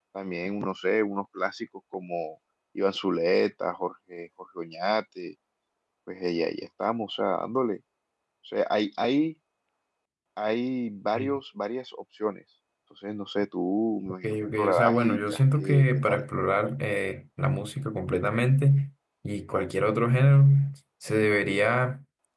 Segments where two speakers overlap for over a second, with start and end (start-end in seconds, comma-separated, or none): 14.1-16.2